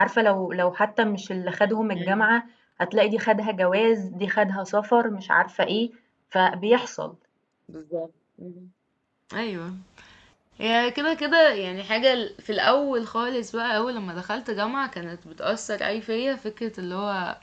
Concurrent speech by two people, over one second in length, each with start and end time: none

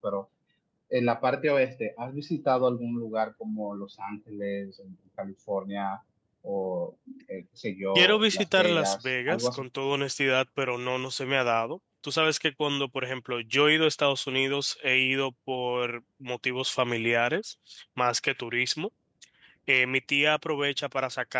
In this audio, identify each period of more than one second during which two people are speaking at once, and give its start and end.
8.0-9.6

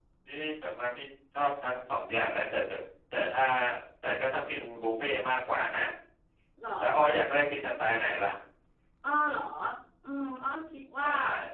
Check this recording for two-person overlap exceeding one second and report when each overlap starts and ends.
none

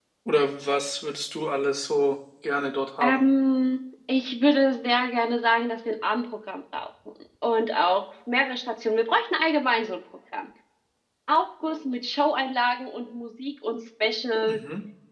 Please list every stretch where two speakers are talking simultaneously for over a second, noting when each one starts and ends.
none

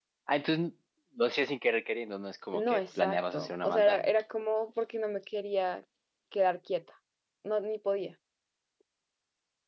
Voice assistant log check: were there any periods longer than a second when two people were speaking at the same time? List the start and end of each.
2.5-4.0

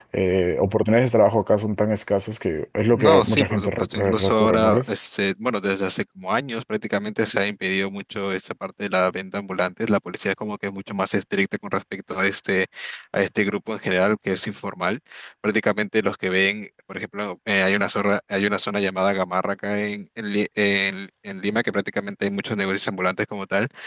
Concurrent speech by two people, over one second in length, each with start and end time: 2.9-5.0

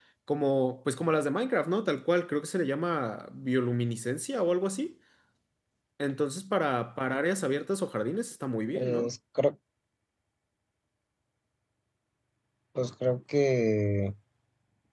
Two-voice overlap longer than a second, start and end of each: none

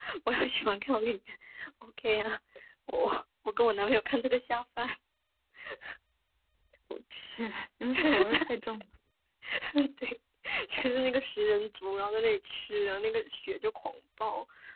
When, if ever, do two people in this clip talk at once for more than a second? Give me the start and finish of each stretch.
none

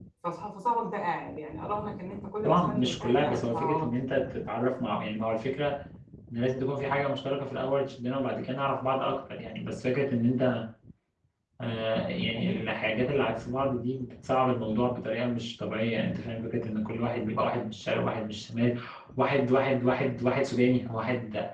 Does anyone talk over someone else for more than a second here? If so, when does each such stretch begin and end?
2.4-3.9

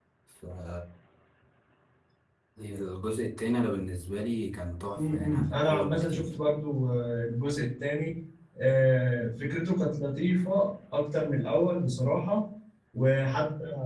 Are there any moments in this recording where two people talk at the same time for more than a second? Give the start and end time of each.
5.0-6.3

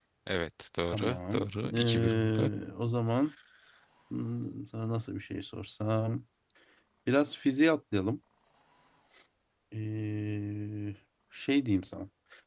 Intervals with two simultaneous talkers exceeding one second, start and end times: 0.9-2.5

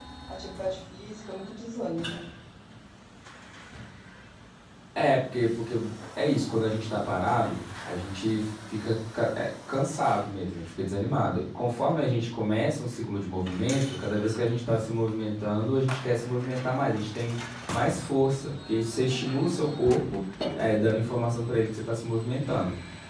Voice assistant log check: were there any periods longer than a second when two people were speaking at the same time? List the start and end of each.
none

